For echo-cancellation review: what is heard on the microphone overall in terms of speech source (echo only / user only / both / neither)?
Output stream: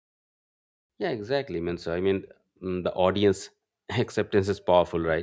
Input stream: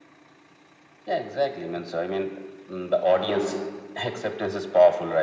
echo only